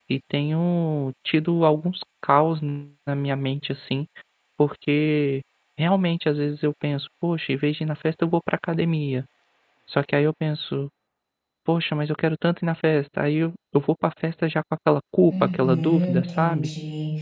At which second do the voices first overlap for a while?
15.3 s

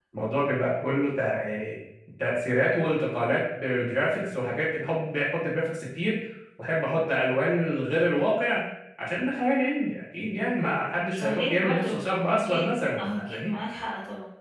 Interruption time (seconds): 11.2 s

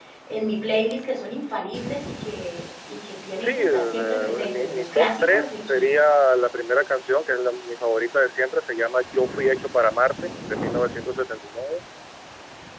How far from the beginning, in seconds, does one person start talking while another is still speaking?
3.4 s

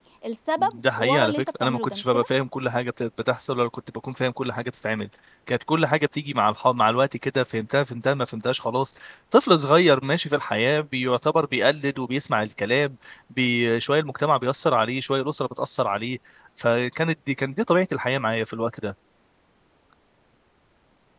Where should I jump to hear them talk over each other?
0.6 s

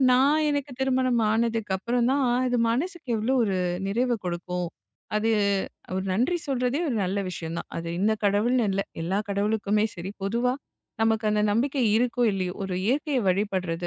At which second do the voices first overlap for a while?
none

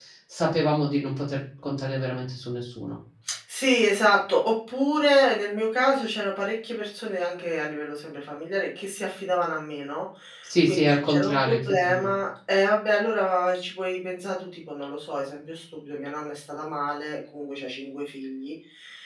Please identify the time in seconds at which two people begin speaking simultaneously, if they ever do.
10.7 s

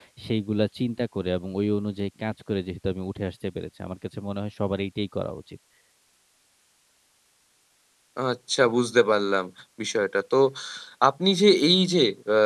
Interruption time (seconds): none

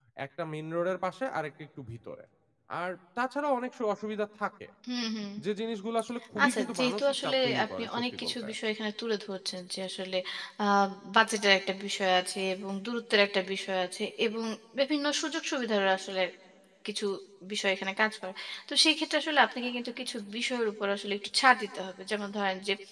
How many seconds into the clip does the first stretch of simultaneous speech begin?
6.4 s

